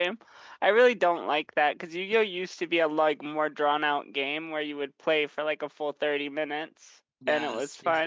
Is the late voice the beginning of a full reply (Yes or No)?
Yes